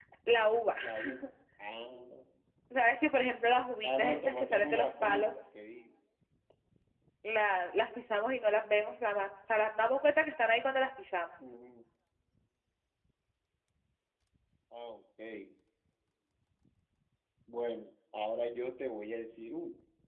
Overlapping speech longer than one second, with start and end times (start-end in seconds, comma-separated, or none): 3.9-5.3